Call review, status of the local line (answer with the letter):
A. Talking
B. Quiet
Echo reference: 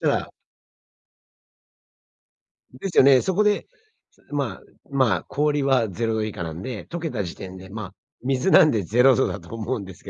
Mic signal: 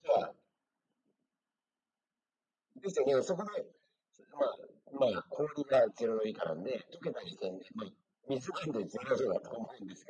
B